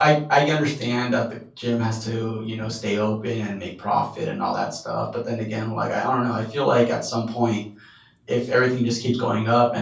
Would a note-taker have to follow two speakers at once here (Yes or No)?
No